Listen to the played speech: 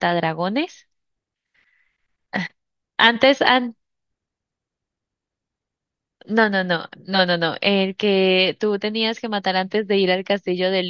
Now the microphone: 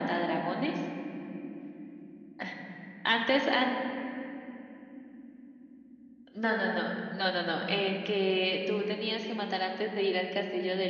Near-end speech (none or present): none